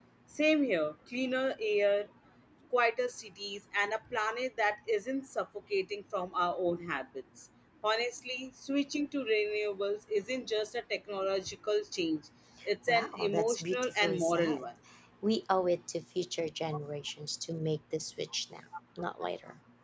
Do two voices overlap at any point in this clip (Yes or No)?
Yes